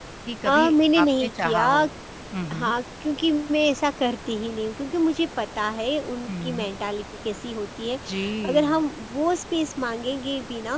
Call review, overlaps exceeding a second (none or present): present